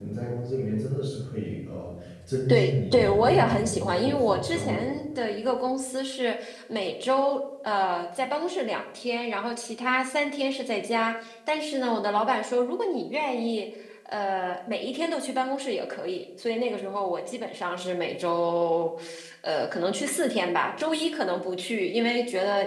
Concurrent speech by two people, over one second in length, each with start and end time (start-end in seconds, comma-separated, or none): 2.5-4.9